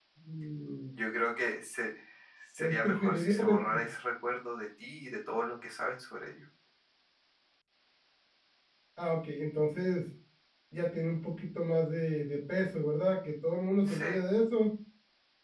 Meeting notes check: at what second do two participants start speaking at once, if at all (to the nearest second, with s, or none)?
3 s